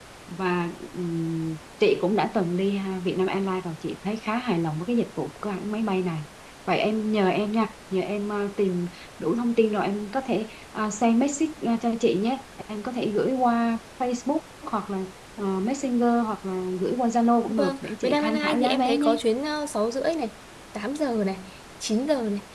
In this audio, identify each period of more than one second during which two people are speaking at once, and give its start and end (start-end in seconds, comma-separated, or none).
17.6-19.2